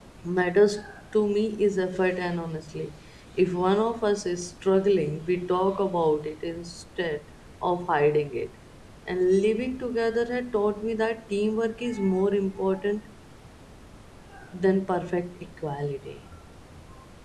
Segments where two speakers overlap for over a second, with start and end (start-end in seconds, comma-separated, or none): none